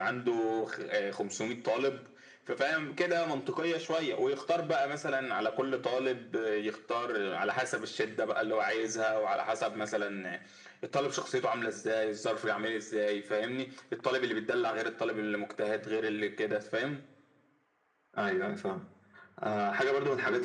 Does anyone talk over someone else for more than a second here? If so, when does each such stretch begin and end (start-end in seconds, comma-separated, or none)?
none